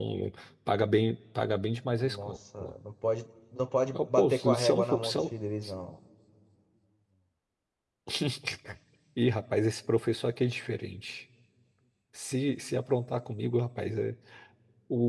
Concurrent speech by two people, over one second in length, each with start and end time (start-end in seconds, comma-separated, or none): 3.9-5.2